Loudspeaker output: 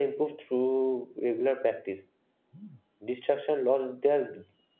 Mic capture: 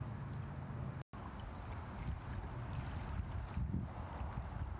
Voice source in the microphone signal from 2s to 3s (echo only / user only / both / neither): neither